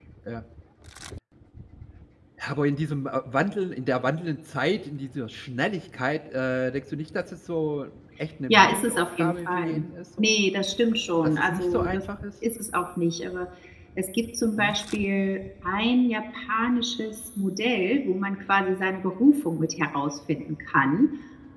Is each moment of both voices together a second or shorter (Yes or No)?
No